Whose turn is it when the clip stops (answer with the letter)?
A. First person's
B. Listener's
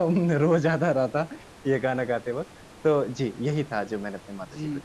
B